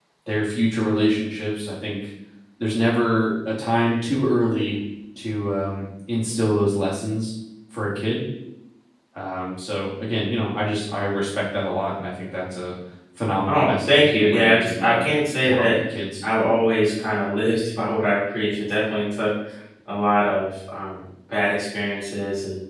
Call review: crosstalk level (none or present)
present